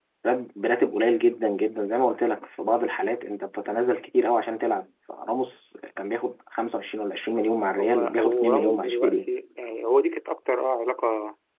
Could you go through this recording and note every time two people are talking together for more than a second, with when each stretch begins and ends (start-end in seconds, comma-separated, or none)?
7.8-9.3